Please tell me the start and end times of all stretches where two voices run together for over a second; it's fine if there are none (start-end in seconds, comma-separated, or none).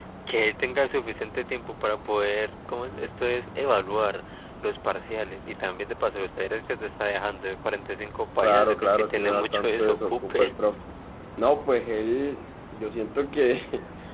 8.4-10.5